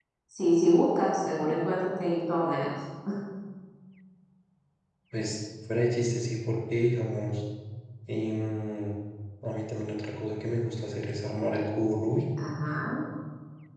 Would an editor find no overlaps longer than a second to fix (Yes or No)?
Yes